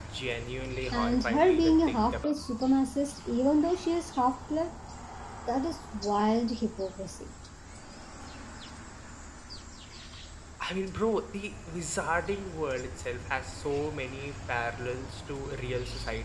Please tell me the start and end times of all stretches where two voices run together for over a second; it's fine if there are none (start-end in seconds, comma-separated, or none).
0.9-2.3